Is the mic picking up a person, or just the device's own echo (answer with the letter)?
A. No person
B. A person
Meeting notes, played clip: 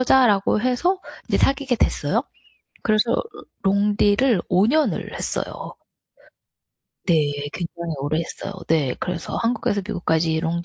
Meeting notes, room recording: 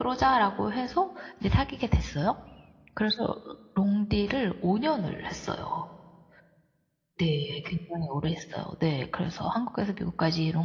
A